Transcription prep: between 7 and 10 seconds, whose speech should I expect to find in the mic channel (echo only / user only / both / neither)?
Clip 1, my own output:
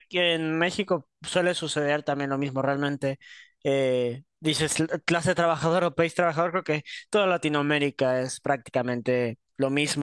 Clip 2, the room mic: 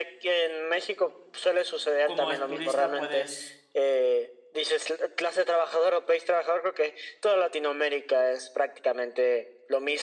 echo only